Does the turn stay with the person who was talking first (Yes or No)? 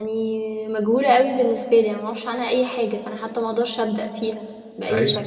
No